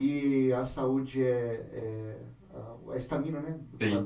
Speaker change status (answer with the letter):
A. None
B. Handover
A